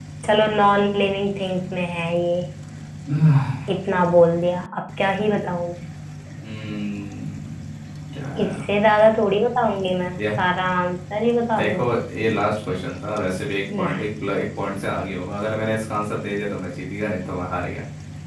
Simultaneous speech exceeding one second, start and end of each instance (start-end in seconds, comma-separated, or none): none